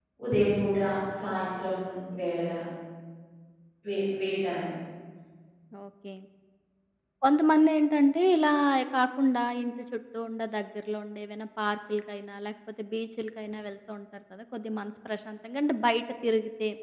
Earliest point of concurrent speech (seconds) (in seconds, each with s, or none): none